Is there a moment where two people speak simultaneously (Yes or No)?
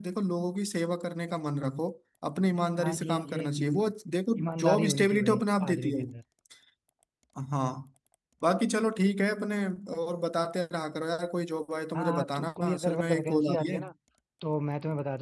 Yes